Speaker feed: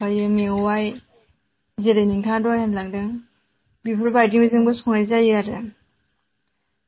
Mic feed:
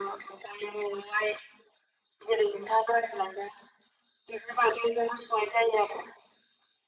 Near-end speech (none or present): none